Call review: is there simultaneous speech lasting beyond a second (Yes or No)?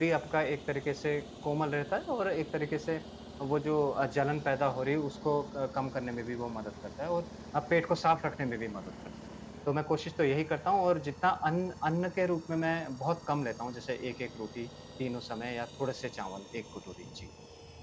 No